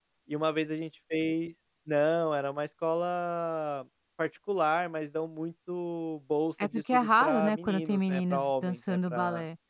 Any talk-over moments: Yes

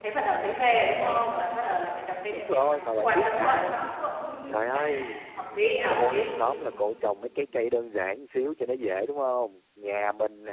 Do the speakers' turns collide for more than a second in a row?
Yes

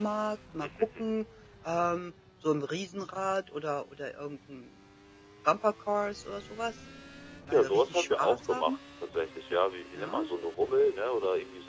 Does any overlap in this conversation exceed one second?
Yes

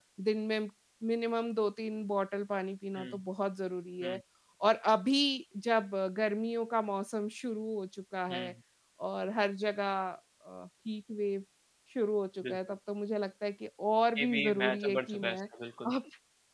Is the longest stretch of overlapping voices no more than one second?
No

